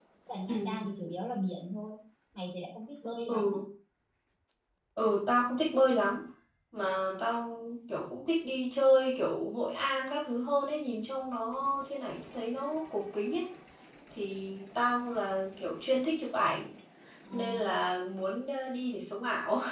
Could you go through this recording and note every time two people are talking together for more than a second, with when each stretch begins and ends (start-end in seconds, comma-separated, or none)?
none